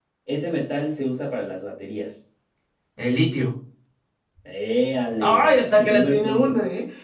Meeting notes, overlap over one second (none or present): present